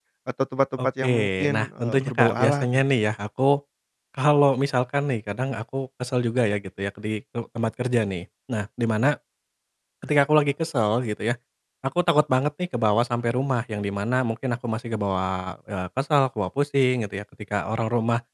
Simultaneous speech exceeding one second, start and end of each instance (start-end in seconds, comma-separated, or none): 0.8-2.8